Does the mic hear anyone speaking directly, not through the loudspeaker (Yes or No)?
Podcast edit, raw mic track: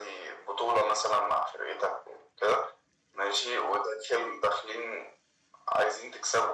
No